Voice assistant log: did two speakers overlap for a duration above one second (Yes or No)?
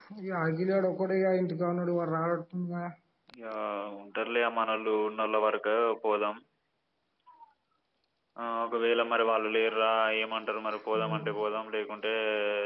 No